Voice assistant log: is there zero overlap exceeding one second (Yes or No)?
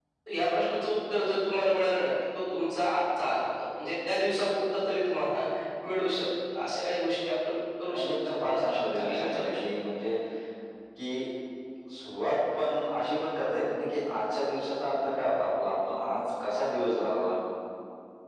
No